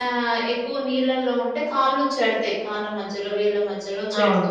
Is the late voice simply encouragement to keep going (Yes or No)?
Yes